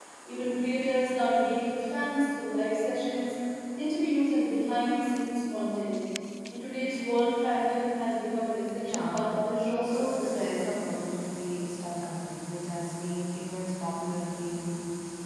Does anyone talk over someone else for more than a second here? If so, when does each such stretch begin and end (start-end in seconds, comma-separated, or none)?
8.8-10.7